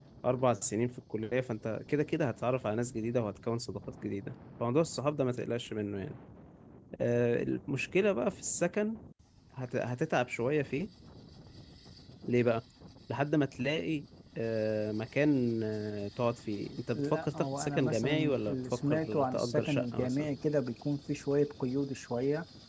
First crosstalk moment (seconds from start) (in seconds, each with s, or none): 16.9 s